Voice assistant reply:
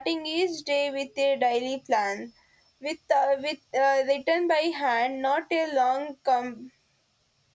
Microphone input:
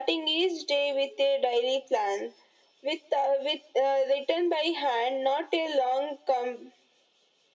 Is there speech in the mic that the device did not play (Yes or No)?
No